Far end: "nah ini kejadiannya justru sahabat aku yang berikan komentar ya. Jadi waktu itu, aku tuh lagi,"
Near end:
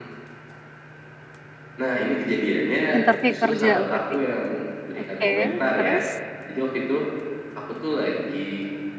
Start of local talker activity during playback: 3 s

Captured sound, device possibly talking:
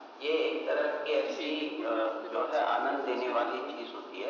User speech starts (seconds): 1 s

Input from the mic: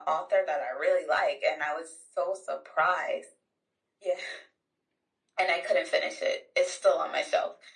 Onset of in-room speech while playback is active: none

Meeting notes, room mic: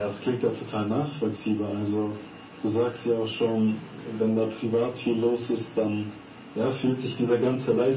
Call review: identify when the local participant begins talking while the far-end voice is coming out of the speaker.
none

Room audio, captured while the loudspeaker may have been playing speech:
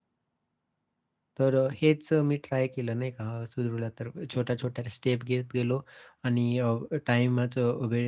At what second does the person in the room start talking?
1 s

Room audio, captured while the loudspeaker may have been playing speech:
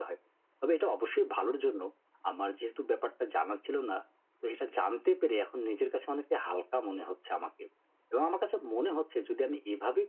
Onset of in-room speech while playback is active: none

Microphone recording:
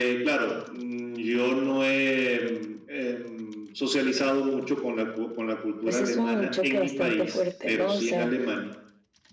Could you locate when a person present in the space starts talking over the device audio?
6 s

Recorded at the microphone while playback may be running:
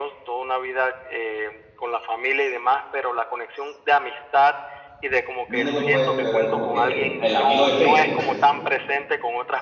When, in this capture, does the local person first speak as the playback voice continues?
5 s

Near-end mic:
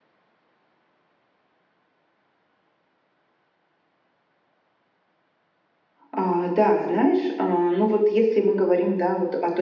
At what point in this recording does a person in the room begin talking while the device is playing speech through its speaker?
6 s

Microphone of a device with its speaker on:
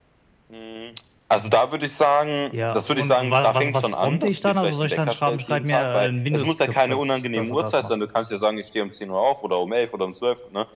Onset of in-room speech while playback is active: none

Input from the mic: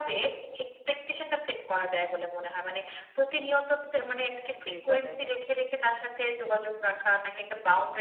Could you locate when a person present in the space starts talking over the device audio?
5 s

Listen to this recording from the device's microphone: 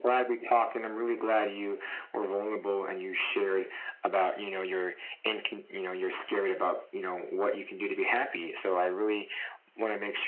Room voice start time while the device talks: none

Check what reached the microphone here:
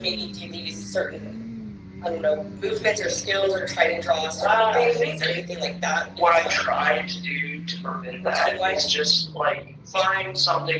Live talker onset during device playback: none

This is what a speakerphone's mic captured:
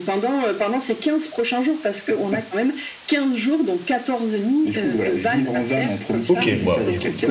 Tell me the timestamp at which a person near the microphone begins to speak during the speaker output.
6 s

